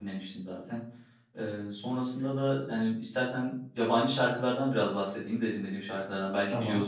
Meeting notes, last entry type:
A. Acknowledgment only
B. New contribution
A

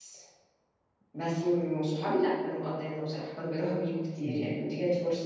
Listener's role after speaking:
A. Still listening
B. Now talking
A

